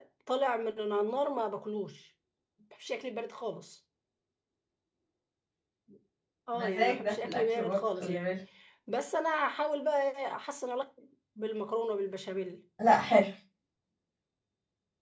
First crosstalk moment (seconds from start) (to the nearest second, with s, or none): 7 s